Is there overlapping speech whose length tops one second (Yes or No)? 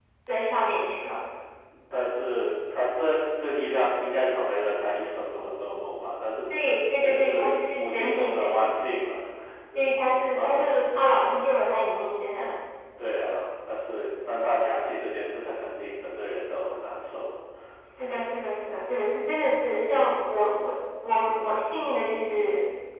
Yes